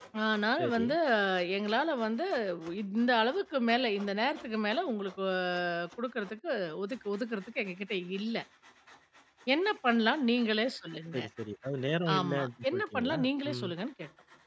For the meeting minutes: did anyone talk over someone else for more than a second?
Yes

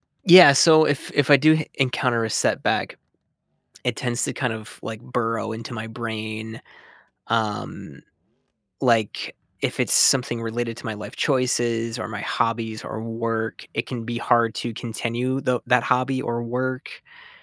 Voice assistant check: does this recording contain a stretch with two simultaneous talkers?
No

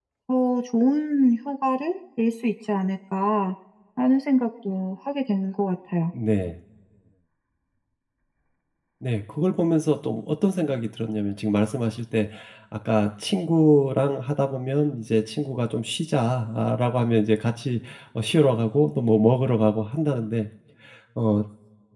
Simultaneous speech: No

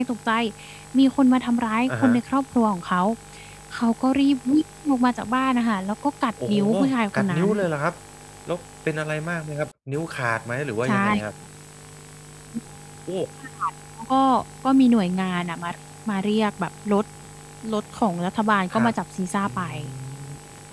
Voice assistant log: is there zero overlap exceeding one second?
Yes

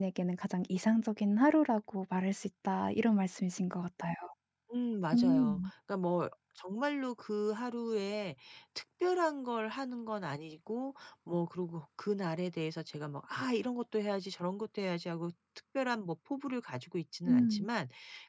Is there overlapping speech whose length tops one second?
No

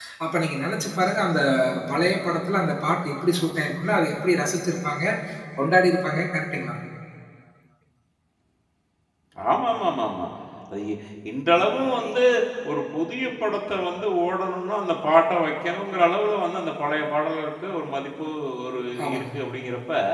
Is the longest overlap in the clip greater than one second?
No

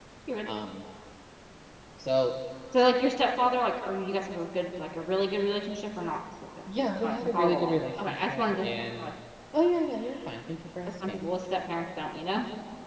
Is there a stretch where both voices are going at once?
Yes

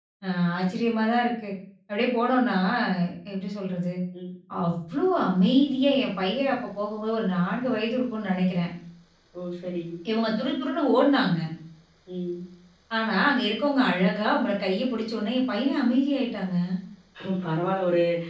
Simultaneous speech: No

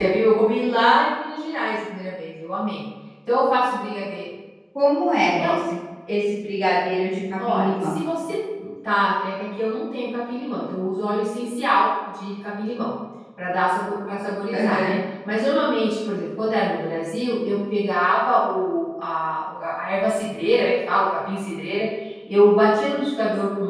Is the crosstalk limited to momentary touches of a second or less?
Yes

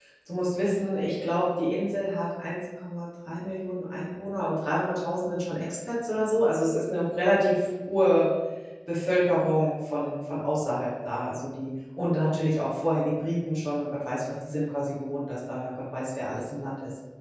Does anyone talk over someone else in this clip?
No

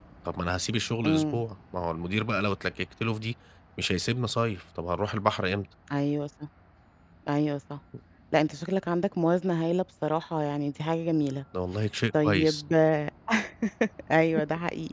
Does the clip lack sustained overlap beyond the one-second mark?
Yes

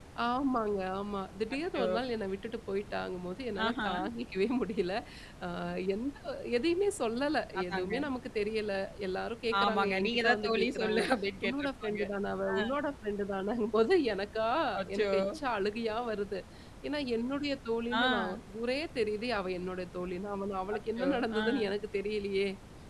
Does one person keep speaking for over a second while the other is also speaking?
Yes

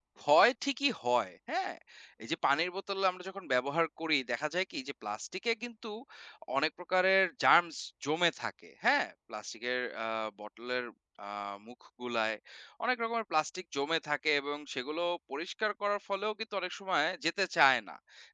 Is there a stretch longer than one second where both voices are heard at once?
No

